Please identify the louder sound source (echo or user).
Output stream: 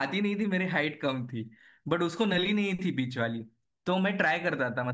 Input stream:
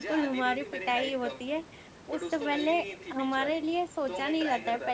user